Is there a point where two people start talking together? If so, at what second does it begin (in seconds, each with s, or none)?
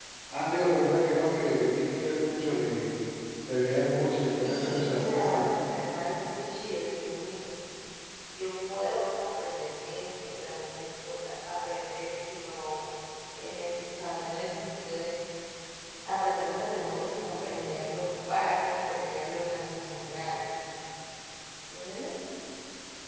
4.4 s